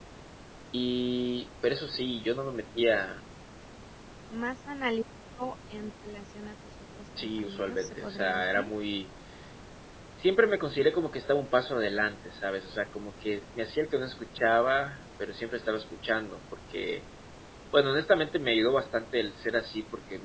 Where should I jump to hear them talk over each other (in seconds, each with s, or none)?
7.2 s